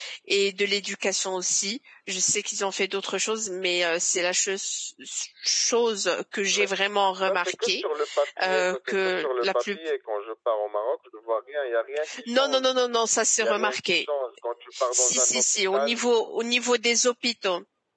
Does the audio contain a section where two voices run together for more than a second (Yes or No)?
Yes